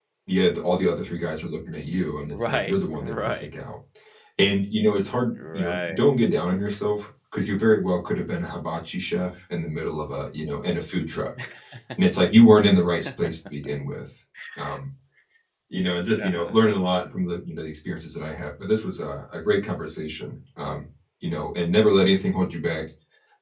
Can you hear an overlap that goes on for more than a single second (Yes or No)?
Yes